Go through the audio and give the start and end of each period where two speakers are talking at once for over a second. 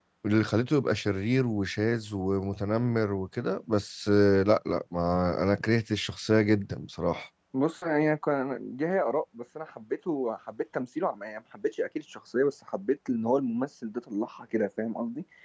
none

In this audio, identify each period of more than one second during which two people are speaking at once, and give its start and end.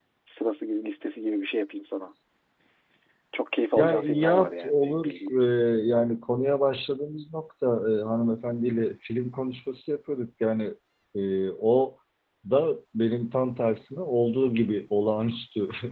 3.8-5.4

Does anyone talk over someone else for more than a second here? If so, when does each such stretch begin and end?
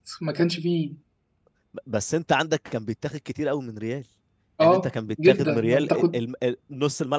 4.6-6.2

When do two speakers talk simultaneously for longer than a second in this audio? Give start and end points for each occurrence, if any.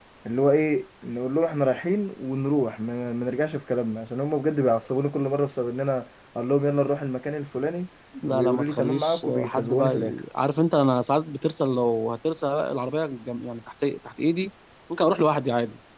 8.3-10.2

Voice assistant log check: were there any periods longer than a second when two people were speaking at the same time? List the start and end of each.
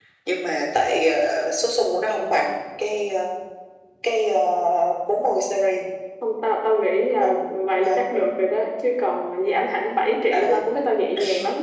none

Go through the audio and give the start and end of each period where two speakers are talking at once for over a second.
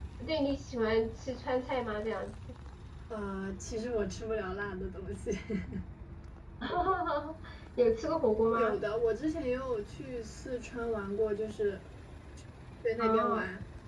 none

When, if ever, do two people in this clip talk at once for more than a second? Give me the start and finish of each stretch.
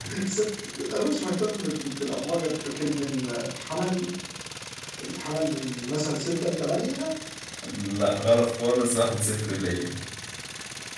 none

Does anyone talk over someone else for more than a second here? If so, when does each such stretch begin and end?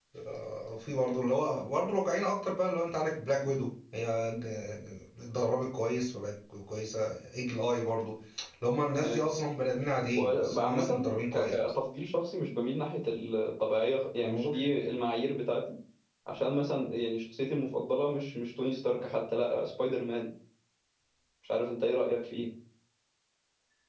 10.2-11.8

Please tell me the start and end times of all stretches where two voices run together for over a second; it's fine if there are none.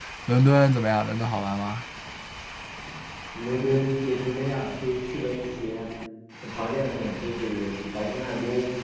none

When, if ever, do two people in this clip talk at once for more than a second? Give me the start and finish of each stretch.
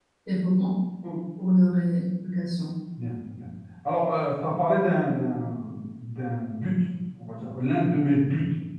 none

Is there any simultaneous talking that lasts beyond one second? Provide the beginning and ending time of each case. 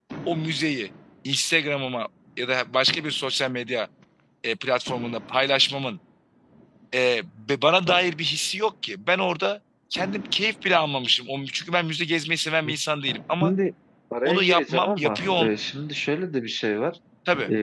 14.2-15.5

